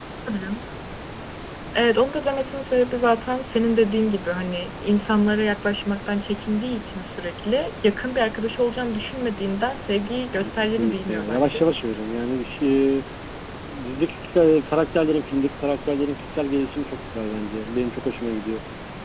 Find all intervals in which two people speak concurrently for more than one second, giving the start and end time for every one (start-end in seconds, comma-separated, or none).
10.4-11.7